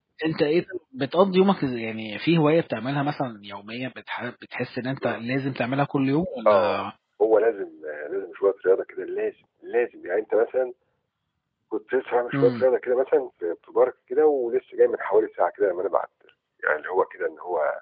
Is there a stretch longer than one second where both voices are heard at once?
No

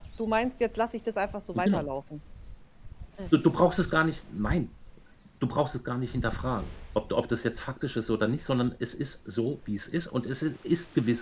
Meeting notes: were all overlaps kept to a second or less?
Yes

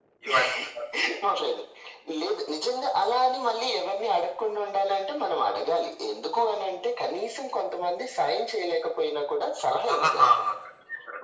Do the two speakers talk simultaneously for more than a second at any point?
No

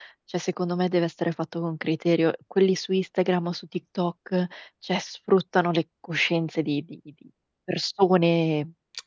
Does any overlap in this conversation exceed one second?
No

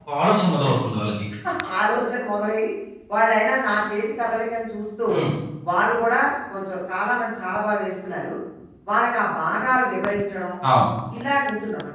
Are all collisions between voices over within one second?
Yes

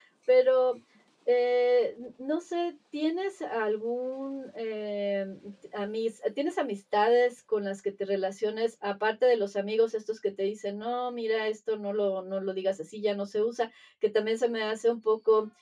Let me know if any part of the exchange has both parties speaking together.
No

